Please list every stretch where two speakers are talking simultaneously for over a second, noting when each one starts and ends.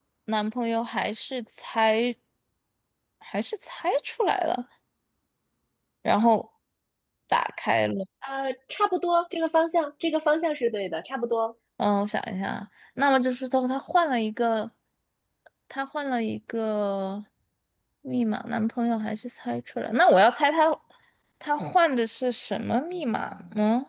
none

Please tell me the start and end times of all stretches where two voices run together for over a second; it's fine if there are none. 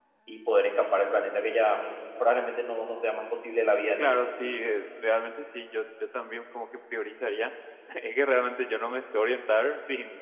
none

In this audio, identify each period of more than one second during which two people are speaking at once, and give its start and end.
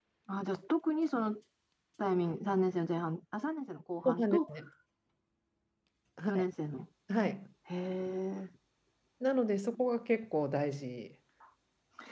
none

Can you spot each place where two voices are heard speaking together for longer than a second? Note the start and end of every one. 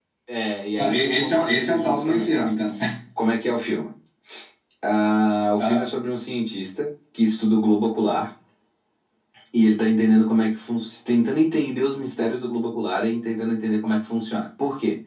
0.8-2.5

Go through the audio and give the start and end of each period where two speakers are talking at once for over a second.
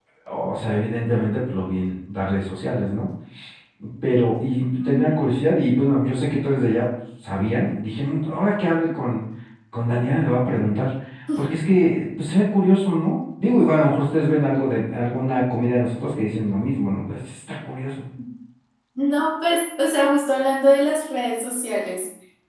none

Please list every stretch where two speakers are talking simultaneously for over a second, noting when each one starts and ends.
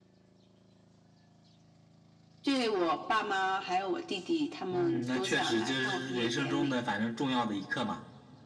4.7-6.7

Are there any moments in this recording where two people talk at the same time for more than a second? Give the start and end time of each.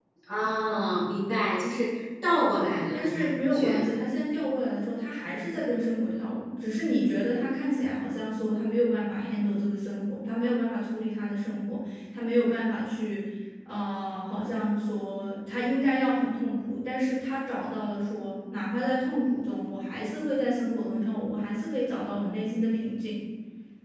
2.5-3.9

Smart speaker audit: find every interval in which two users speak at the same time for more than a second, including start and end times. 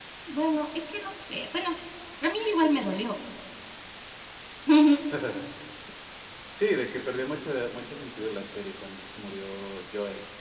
none

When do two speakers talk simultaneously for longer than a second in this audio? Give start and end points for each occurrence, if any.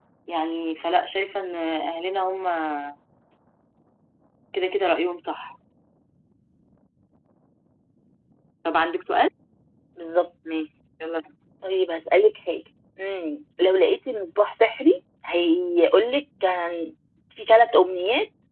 none

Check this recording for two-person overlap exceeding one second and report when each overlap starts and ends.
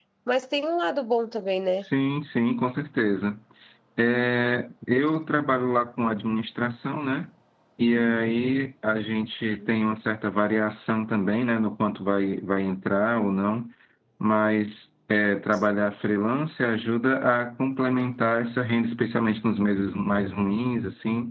none

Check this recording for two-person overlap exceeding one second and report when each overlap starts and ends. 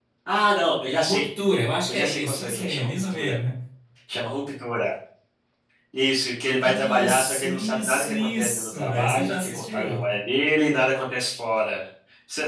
1.9-3.4, 6.6-10.0

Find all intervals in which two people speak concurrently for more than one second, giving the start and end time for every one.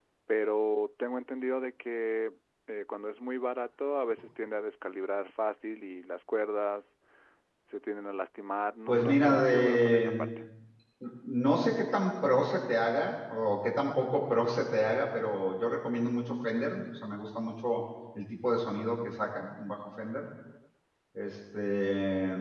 8.9-10.3

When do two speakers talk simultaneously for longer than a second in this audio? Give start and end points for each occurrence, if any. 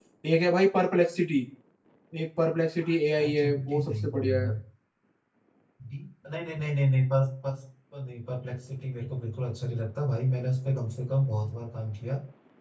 3.1-4.5

